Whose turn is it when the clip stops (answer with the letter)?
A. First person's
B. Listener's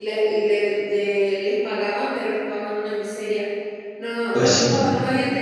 A